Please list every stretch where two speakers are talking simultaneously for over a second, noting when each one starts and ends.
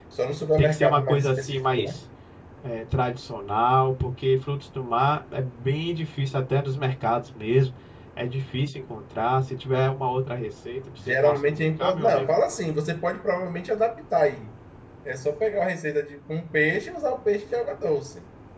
0.6-2.0, 11.1-12.4

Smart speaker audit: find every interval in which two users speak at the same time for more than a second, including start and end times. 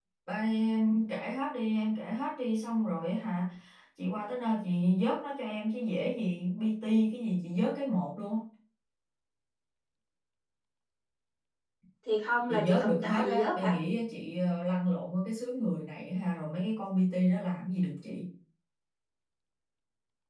12.5-13.8

